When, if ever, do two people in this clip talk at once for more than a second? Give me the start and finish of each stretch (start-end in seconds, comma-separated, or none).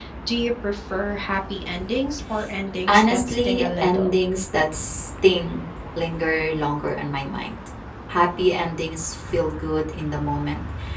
2.9-4.2